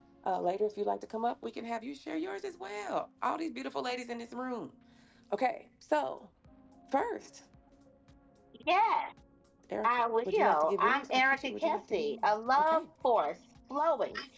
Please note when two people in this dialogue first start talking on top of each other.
9.8 s

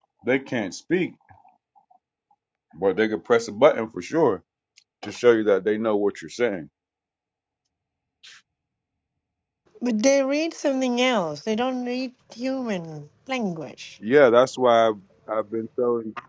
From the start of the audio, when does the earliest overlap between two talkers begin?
none

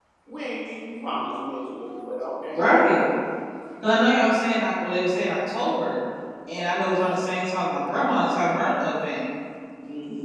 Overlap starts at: none

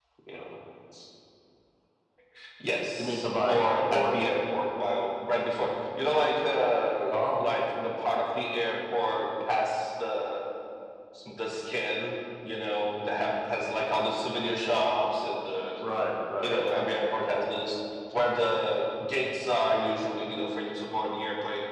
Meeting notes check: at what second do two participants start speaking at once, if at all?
3.0 s

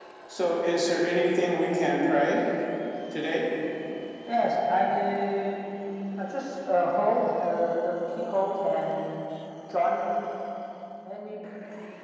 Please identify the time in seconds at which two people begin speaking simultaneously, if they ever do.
none

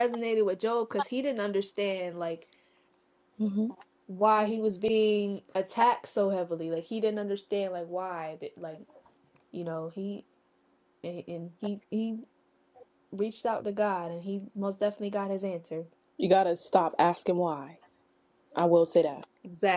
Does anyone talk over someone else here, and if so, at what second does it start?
none

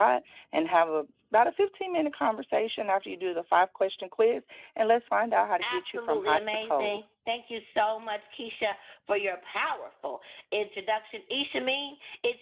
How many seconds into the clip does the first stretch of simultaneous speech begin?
5.6 s

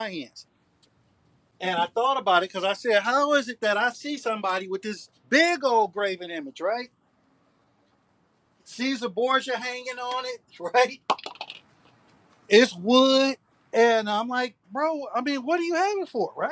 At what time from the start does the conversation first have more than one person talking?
none

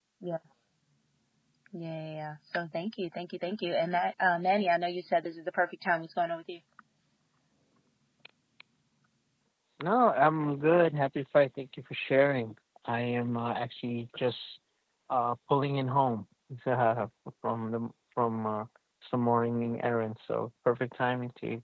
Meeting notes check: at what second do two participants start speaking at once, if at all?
none

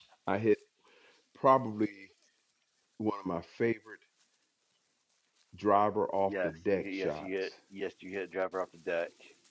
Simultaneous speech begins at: 6.2 s

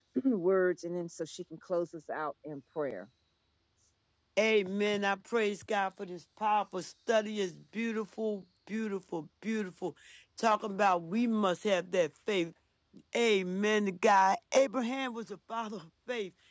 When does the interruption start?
none

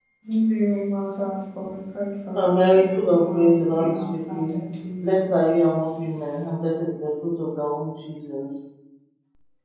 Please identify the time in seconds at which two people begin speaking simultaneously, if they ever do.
2.4 s

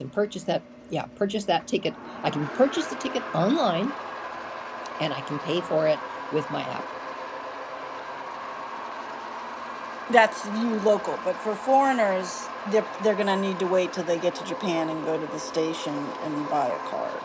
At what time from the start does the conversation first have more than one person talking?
none

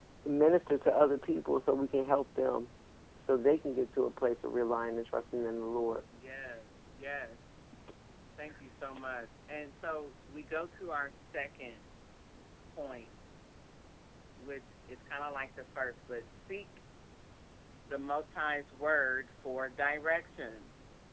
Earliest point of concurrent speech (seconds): none

